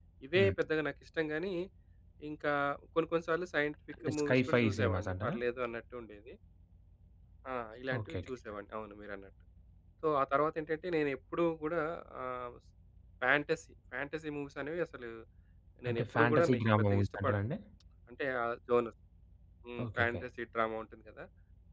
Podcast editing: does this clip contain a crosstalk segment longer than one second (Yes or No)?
Yes